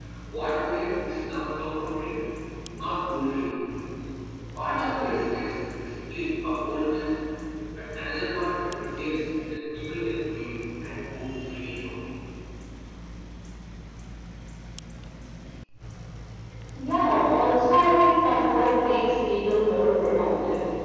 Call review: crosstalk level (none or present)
none